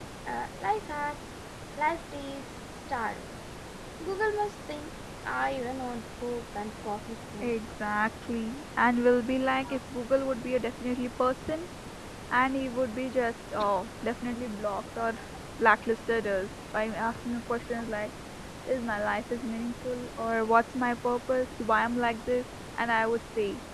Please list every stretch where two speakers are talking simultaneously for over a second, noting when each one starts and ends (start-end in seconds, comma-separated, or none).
none